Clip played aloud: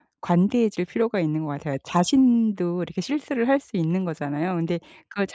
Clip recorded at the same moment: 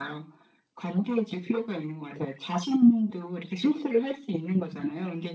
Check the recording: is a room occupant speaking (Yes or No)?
No